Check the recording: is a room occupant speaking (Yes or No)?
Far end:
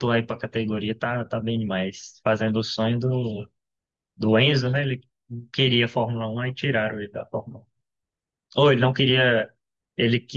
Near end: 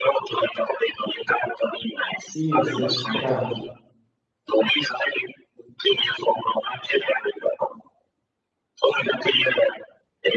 Yes